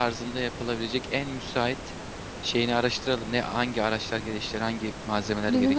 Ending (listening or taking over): taking over